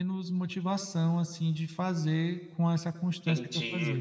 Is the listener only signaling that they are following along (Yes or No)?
No